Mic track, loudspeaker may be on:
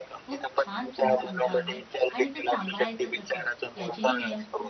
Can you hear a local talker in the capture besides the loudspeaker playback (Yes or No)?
Yes